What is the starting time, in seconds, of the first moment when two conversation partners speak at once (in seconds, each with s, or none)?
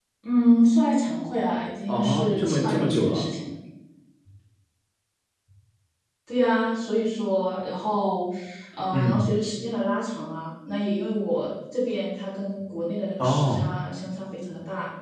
1.9 s